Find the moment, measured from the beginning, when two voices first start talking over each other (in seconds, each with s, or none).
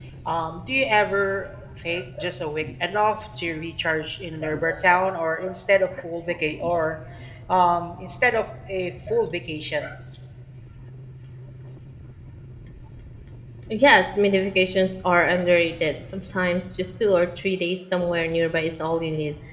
none